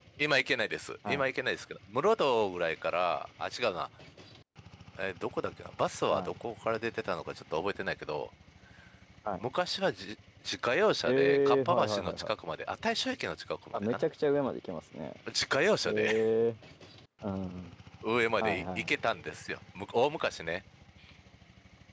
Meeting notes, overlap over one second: present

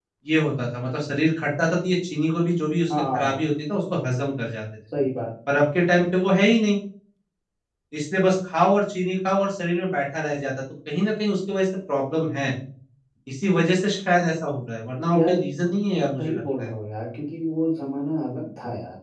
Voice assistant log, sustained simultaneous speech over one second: none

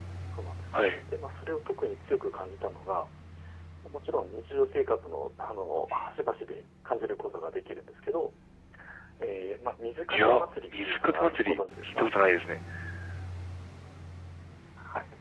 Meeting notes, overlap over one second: present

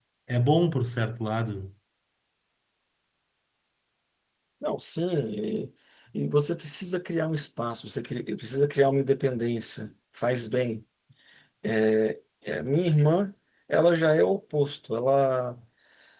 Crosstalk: none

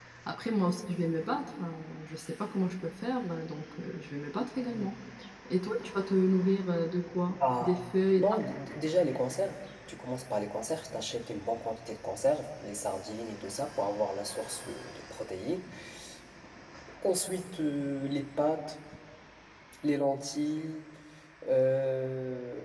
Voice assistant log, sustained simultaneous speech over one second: none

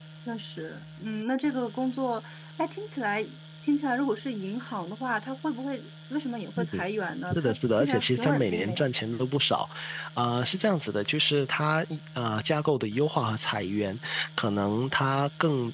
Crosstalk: present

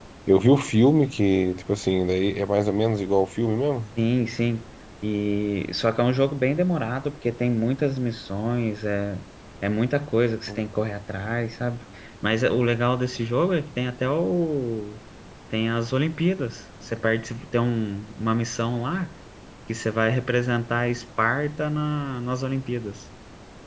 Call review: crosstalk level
none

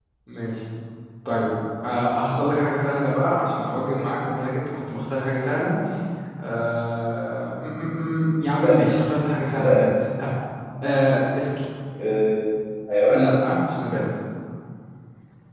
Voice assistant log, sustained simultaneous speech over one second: none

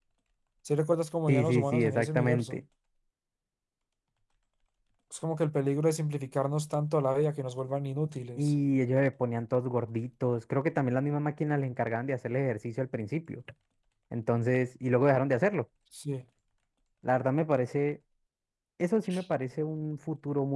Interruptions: present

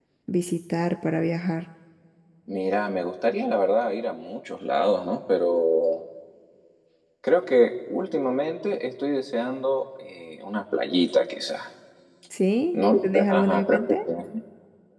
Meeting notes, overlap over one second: present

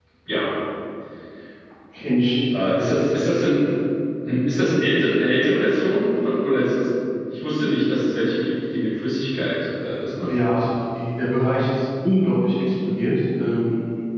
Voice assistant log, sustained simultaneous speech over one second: none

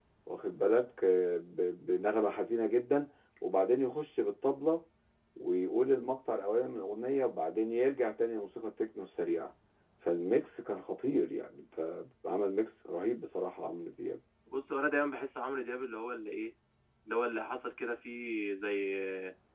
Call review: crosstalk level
none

